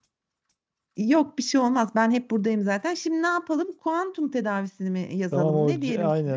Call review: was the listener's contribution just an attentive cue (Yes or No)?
No